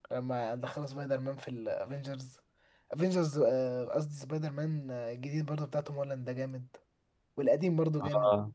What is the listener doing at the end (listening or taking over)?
listening